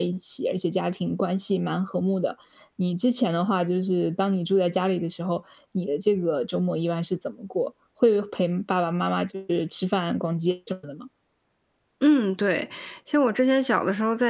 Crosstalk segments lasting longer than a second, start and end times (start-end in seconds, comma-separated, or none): none